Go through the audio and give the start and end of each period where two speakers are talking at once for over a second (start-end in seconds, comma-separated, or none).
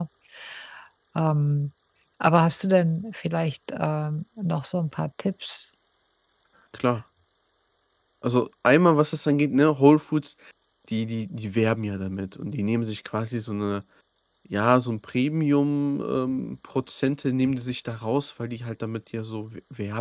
none